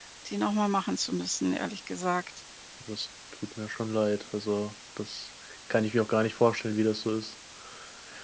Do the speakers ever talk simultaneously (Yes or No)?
No